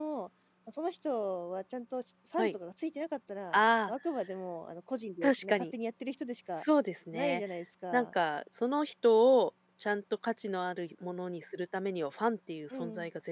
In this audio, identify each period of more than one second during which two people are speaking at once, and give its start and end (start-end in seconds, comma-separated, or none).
none